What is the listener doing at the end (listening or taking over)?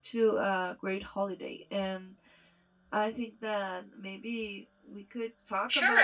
taking over